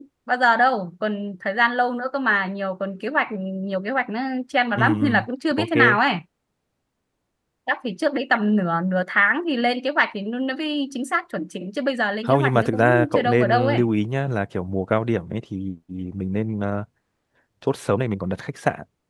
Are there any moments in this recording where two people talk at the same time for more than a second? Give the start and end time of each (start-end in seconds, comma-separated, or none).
12.2-13.8